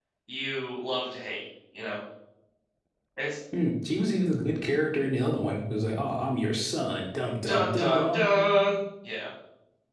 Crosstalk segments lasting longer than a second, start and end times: 7.5-8.7

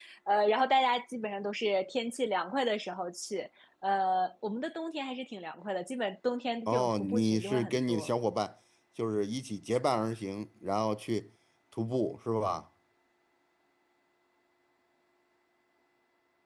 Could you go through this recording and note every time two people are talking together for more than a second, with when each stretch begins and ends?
6.7-8.1

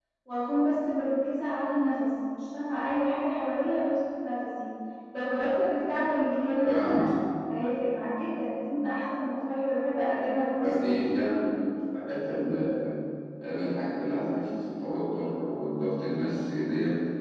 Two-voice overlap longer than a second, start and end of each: none

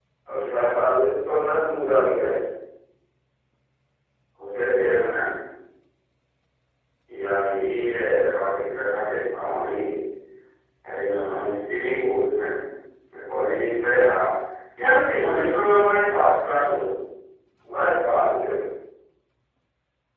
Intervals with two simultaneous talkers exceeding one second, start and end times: none

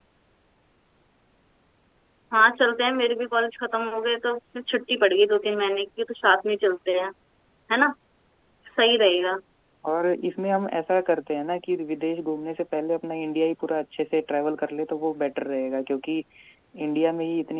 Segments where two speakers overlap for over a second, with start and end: none

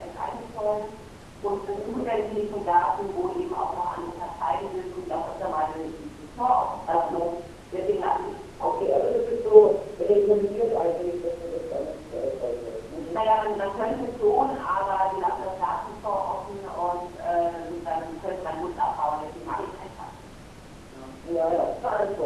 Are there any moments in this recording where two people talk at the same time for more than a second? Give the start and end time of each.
none

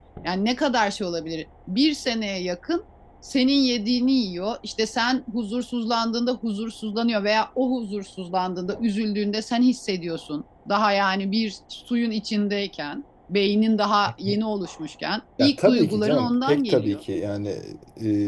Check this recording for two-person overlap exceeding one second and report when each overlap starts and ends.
15.4-17.0

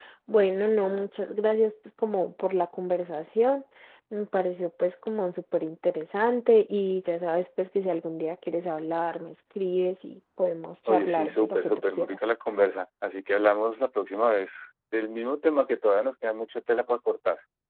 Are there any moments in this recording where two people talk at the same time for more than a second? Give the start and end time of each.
10.9-12.2

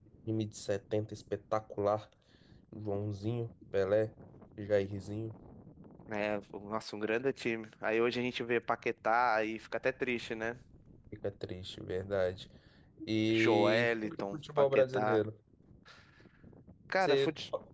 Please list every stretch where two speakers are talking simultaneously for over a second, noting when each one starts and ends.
13.4-15.2

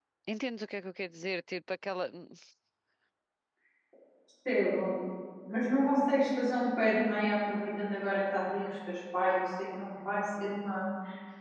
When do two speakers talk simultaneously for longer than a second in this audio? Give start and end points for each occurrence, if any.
none

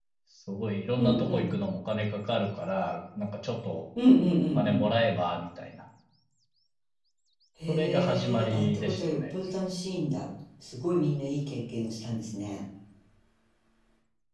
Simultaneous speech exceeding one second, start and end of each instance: 7.7-9.2

